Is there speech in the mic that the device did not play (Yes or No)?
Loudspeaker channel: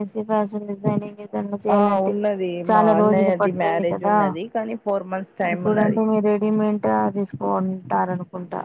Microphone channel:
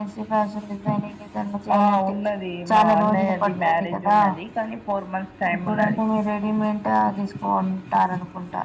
No